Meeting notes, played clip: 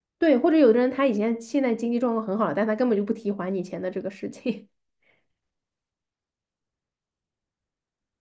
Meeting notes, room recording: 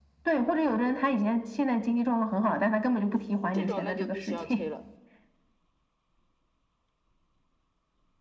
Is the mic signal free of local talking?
No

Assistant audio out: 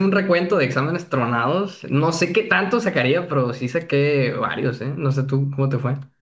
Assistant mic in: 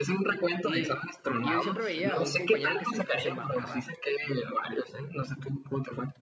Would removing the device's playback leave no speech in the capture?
No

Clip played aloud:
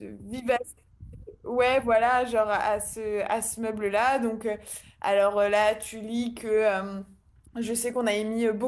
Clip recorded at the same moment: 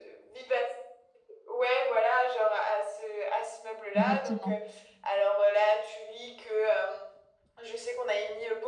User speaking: Yes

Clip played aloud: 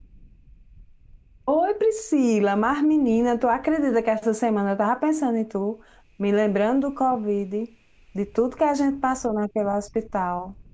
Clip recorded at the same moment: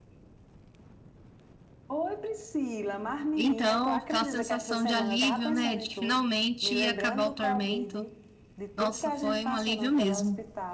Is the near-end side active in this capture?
Yes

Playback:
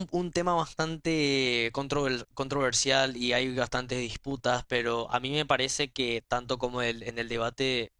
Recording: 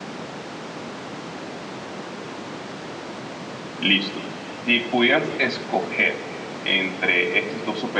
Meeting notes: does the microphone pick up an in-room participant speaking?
Yes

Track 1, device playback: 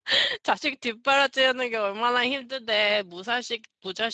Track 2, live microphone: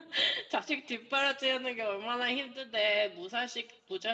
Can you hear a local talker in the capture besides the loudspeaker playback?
No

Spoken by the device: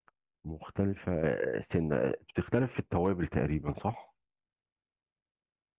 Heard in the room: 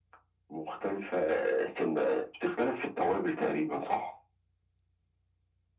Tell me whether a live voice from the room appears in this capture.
No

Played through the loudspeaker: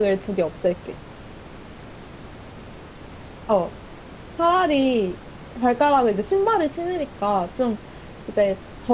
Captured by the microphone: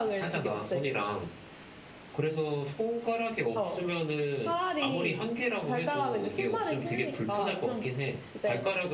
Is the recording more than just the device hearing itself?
Yes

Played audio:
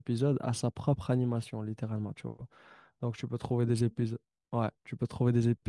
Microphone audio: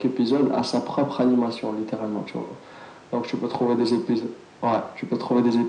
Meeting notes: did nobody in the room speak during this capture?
Yes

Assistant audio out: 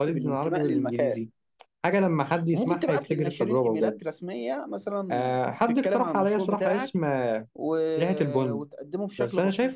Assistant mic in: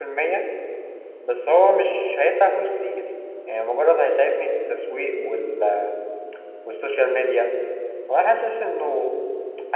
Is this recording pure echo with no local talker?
No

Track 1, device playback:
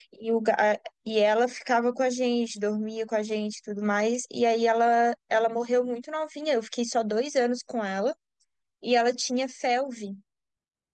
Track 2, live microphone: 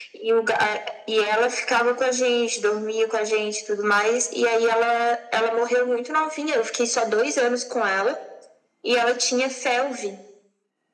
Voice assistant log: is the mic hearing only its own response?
Yes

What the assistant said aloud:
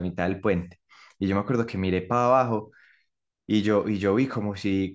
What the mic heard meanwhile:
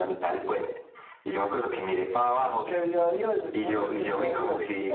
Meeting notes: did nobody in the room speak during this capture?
No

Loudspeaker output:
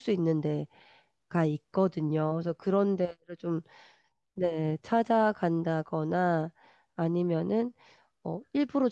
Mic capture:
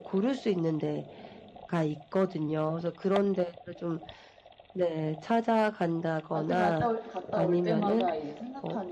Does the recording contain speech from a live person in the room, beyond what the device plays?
Yes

